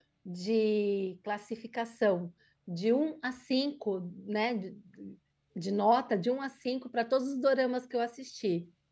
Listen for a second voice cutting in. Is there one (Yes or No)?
No